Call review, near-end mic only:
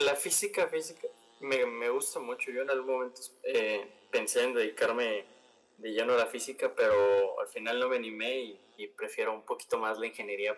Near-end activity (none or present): none